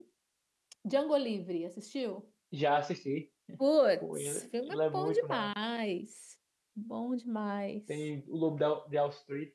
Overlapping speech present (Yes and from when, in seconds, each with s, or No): Yes, from 4.0 s